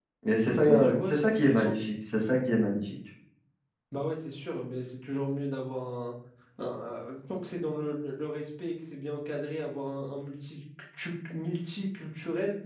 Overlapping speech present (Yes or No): Yes